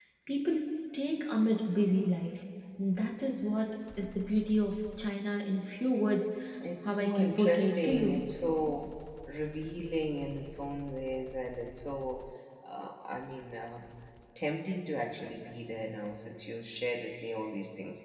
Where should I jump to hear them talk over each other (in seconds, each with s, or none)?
6.9 s